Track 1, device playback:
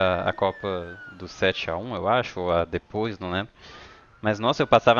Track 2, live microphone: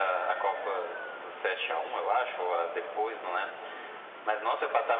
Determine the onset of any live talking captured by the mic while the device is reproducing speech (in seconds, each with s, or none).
none